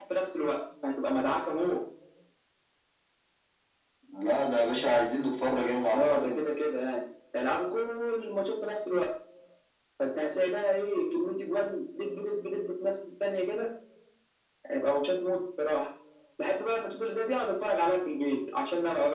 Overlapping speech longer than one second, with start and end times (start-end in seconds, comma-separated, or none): none